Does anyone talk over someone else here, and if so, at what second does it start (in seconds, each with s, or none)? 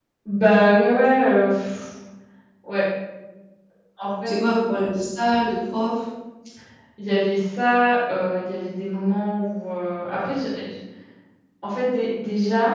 none